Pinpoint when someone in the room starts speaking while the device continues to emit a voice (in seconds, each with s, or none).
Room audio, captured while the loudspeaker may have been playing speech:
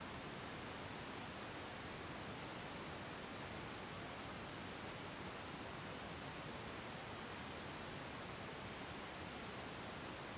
none